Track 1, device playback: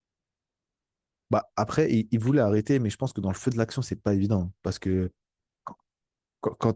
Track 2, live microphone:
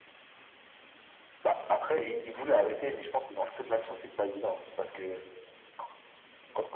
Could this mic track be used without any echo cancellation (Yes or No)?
No